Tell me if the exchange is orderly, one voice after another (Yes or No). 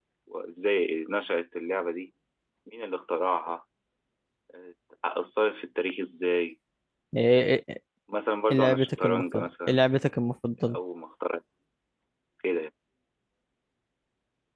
No